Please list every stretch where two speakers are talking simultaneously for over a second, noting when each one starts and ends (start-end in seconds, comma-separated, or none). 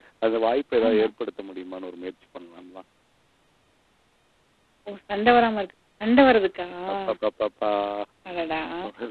none